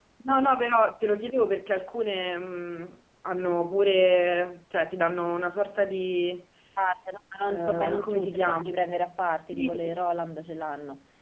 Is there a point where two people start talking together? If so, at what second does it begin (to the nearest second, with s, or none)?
7 s